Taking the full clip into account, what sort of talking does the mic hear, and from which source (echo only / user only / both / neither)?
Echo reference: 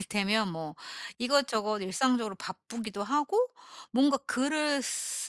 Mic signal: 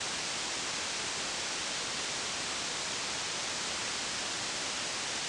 neither